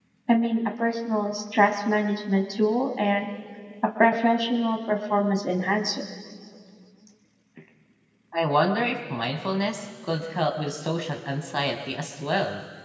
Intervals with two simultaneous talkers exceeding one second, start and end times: none

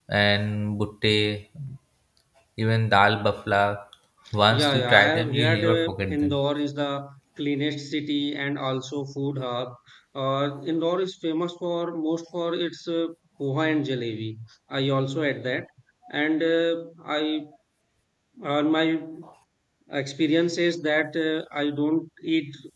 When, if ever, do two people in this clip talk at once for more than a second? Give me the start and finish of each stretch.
4.5-6.3

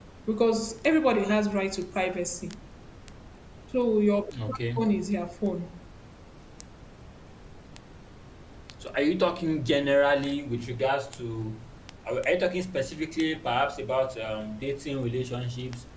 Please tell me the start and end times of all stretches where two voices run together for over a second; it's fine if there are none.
none

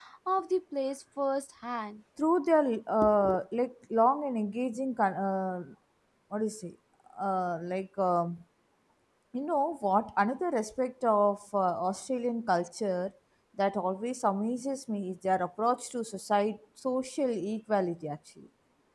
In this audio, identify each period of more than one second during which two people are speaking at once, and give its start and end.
none

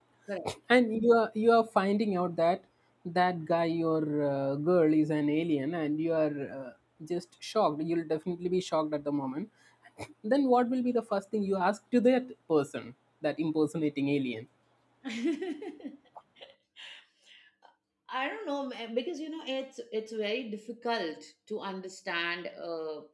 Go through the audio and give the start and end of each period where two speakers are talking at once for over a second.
none

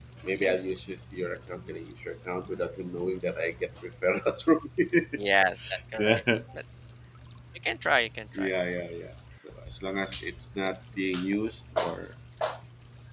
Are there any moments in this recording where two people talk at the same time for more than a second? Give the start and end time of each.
none

